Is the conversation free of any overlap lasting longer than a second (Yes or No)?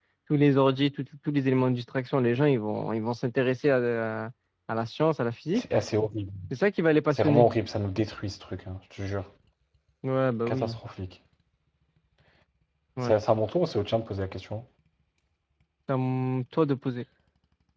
Yes